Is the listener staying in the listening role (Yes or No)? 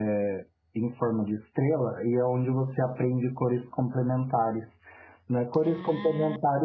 Yes